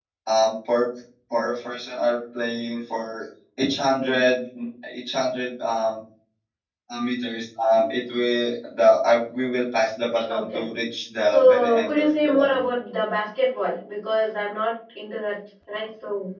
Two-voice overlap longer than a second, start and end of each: 11.3-12.6

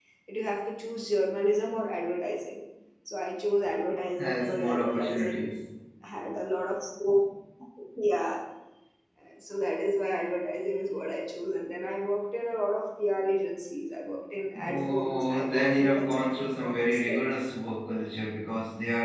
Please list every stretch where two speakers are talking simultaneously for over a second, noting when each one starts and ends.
4.2-5.6, 14.6-17.2

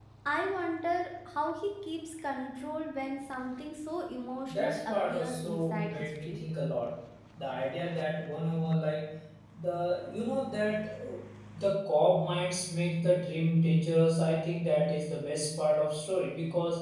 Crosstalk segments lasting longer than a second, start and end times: 4.5-6.4

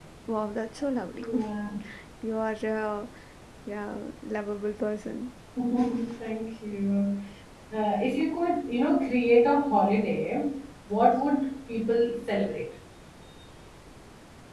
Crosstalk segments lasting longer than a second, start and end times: none

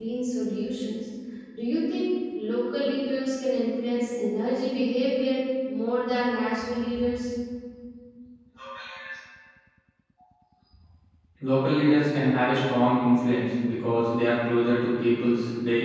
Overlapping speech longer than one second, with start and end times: none

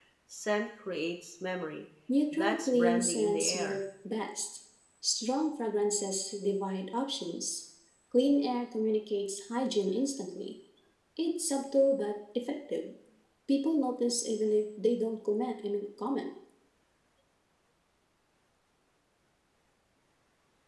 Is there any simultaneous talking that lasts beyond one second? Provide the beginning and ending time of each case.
2.3-3.8

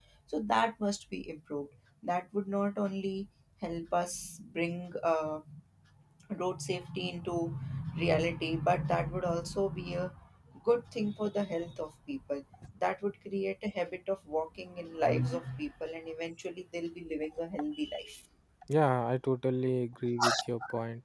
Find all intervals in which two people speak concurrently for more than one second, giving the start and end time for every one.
none

